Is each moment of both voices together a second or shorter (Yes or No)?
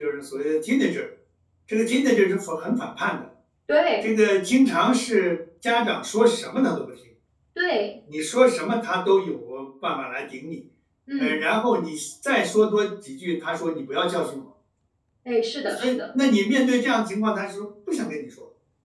Yes